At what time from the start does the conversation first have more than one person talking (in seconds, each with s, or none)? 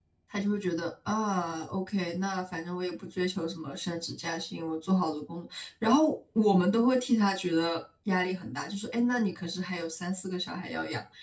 none